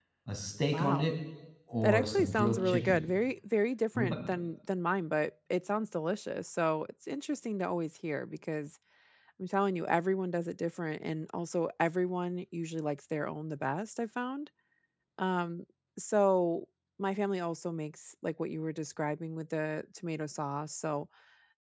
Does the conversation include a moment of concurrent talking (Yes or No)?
Yes